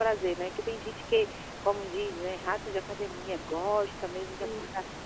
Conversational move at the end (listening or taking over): listening